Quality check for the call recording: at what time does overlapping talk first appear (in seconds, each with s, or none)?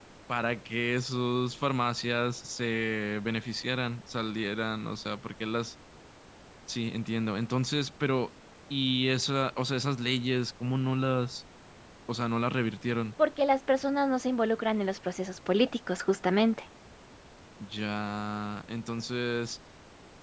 none